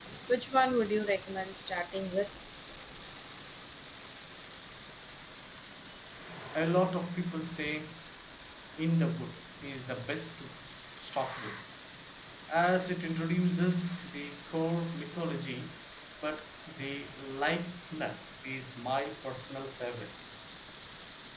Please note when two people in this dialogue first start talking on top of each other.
none

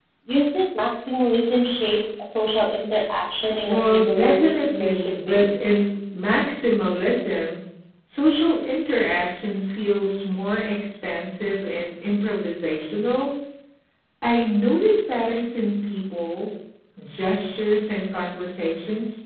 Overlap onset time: 3.6 s

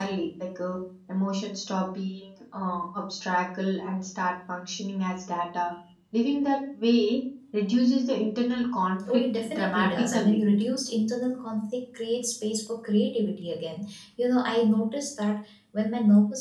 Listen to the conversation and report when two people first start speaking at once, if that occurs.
9.1 s

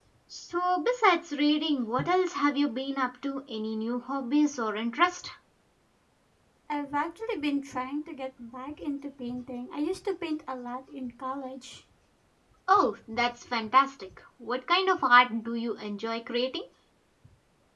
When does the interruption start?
none

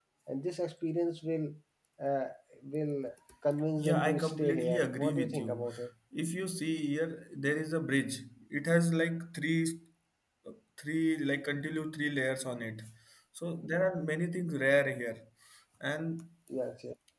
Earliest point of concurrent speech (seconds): 3.8 s

